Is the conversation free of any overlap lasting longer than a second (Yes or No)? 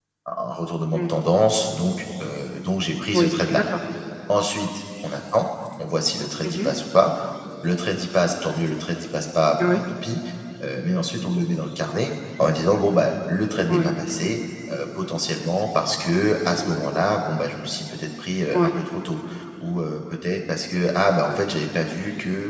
Yes